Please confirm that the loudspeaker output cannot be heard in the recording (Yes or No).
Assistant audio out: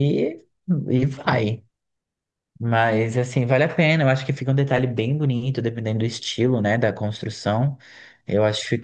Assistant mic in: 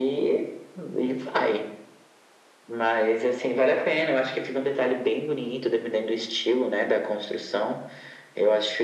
No